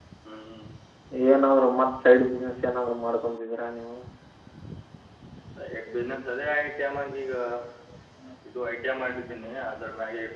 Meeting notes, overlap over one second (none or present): none